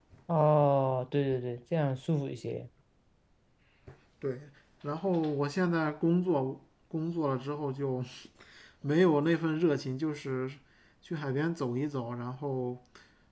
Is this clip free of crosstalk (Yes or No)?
Yes